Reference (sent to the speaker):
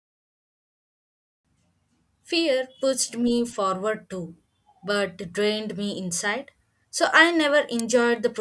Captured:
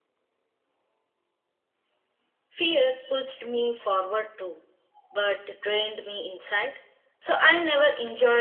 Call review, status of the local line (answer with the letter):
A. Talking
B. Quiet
B